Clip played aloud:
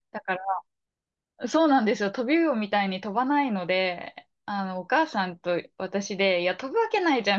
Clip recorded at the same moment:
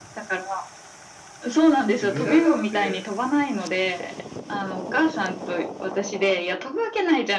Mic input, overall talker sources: both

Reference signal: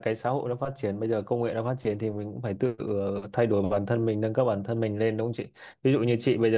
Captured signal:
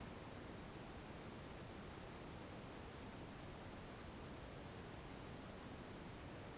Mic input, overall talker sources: neither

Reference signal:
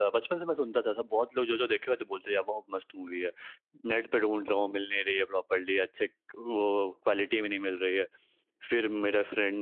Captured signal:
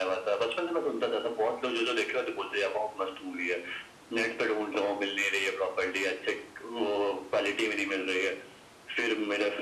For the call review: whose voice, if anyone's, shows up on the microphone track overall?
echo only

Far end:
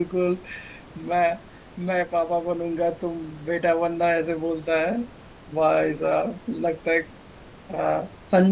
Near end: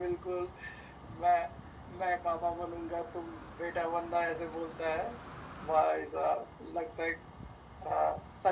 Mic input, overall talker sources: echo only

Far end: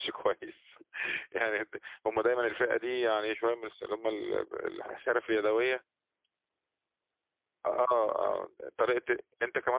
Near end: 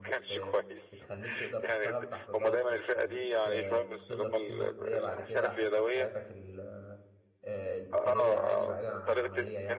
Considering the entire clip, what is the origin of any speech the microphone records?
both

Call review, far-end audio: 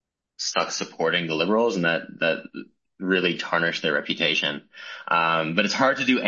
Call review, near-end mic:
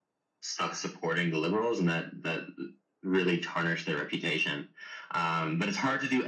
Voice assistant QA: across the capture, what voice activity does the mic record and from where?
echo only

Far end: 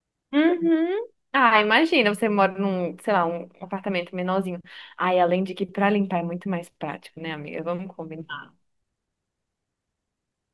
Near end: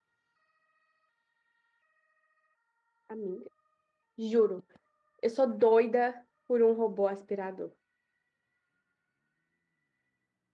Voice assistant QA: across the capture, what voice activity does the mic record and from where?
user only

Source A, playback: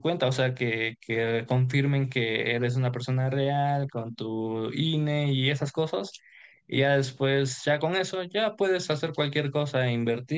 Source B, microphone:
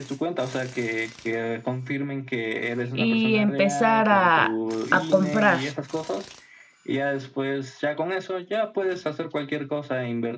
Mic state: both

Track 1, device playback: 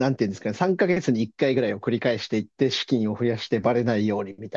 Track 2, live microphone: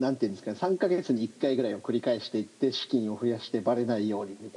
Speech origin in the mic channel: echo only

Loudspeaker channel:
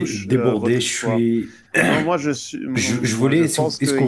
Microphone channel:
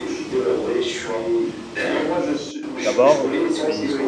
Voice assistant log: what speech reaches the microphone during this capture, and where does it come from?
both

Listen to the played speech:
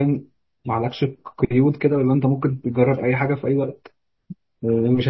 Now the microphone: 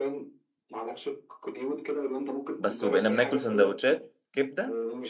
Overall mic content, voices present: both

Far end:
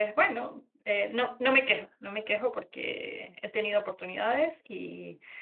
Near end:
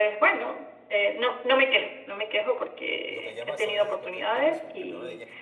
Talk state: both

